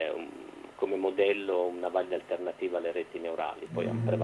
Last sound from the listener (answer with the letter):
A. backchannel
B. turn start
B